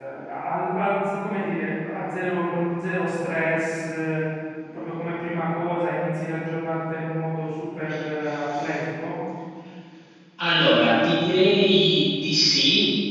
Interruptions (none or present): none